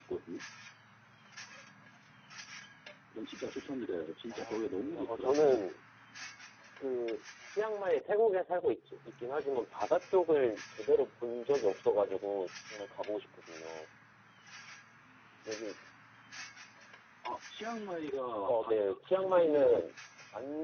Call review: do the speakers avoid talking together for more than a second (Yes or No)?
No